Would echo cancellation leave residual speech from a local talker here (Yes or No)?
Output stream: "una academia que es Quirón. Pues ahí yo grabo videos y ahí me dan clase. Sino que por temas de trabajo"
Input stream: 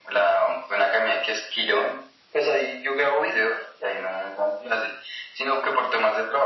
No